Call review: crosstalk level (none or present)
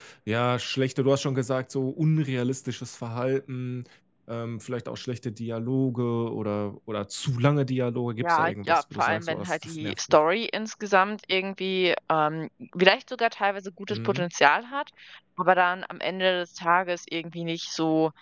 present